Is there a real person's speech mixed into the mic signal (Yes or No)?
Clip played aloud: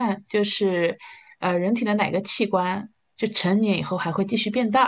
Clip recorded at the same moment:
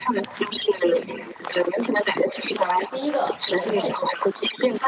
Yes